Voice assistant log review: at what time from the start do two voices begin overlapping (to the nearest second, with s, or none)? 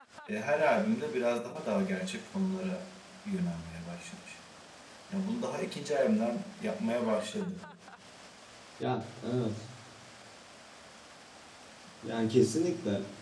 none